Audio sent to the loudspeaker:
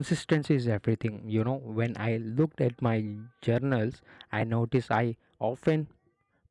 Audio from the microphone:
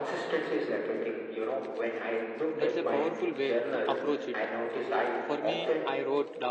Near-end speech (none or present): present